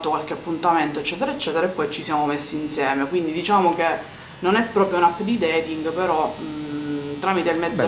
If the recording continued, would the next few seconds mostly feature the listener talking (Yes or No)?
Yes